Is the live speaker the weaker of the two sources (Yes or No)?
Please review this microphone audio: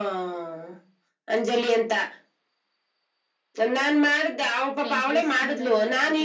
Yes